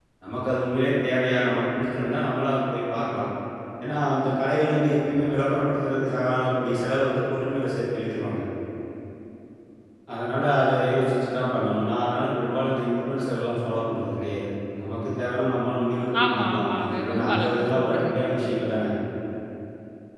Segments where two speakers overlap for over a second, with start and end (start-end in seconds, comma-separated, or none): 16.3-18.1